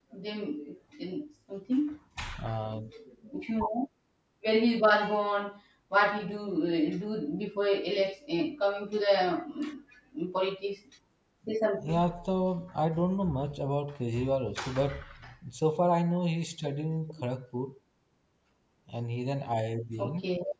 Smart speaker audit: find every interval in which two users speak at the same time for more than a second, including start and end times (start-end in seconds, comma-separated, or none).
none